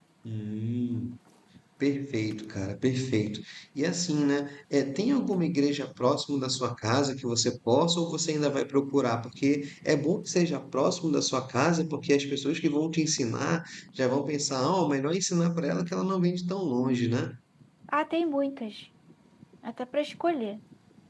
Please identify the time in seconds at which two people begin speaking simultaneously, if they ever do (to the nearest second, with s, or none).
none